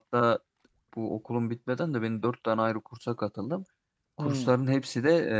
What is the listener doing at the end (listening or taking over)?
listening